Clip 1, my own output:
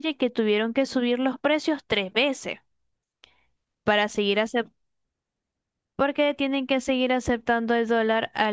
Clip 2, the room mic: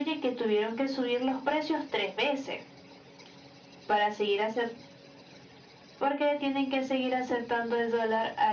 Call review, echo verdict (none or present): present